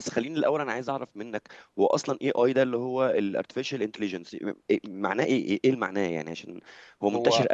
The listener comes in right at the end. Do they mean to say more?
No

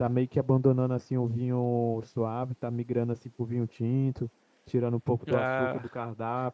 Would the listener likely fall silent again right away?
Yes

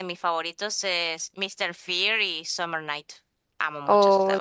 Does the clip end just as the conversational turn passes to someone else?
Yes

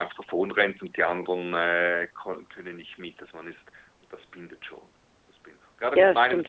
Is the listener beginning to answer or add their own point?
No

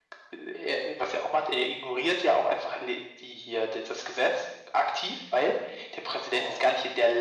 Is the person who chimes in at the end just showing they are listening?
Yes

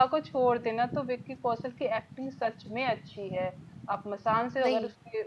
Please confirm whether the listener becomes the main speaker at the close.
No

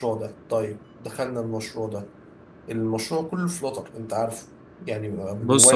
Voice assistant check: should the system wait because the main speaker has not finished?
No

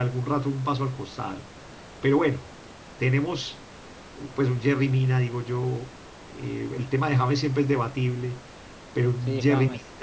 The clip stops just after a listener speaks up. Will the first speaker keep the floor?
Yes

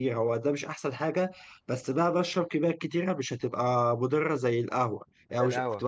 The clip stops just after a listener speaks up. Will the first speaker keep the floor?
Yes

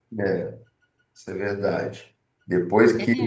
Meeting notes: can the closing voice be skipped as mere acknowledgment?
Yes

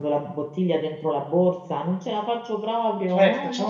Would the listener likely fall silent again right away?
No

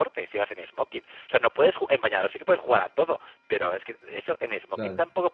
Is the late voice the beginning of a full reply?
No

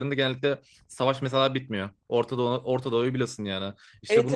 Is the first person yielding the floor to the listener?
No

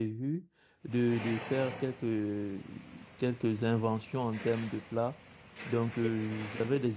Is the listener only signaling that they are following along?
Yes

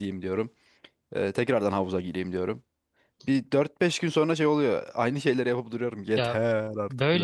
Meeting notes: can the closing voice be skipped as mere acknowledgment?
No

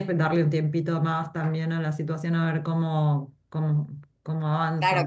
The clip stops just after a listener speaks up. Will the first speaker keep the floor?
No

